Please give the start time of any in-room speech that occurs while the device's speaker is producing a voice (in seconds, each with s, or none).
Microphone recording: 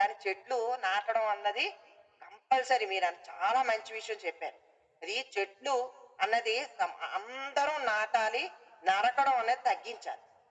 none